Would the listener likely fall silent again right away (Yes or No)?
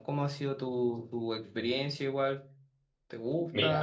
No